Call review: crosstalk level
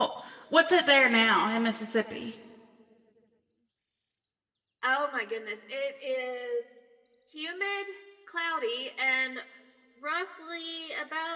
none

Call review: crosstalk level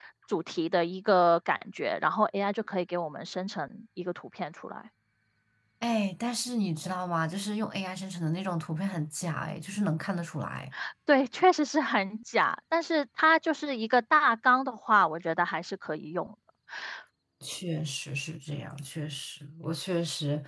none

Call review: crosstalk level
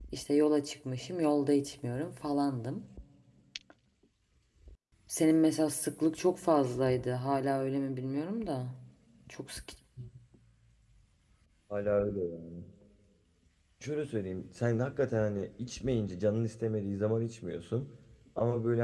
none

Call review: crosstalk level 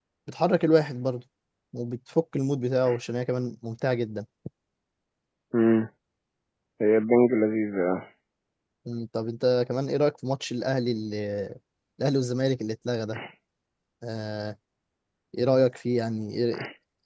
none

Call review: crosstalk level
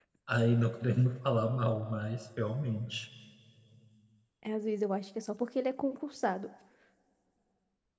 none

